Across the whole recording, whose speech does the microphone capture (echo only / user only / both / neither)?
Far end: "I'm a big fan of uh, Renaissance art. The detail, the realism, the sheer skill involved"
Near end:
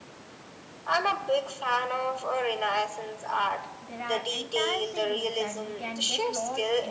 both